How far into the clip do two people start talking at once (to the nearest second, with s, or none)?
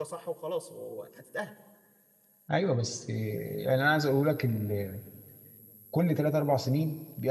none